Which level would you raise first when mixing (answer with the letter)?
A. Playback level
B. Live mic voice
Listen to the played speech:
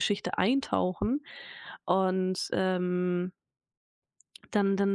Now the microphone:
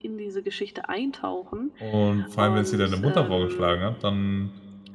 A